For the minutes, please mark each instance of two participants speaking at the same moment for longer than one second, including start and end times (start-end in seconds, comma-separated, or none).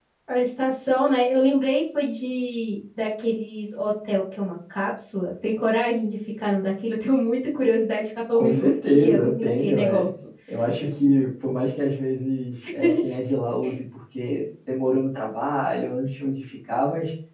8.3-10.1